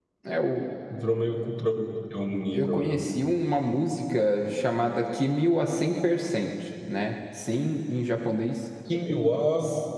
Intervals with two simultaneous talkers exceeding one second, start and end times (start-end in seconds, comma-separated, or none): none